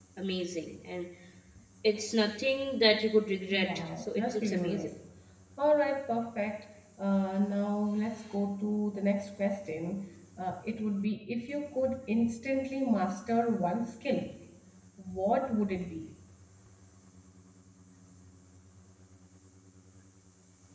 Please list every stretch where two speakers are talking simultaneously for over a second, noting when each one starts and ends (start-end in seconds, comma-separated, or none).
3.5-4.9